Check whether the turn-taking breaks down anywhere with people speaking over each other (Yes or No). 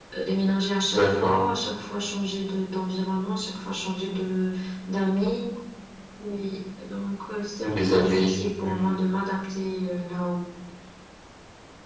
Yes